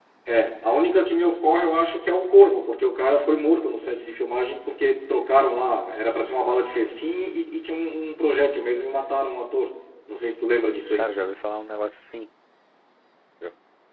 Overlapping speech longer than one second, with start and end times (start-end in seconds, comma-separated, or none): none